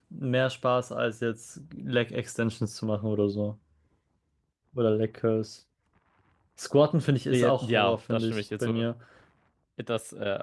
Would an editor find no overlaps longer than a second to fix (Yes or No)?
No